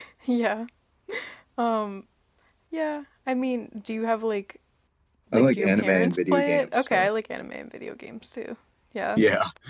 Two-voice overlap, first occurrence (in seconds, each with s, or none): 5.3 s